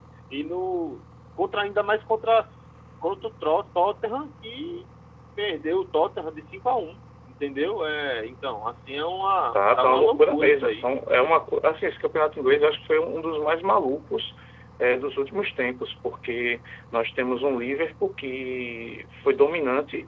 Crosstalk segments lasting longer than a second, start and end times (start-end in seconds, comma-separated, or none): 9.5-10.8